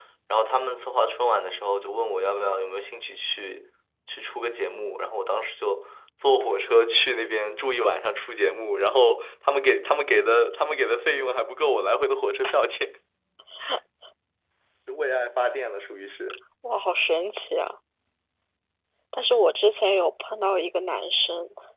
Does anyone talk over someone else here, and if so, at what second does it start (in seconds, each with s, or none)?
none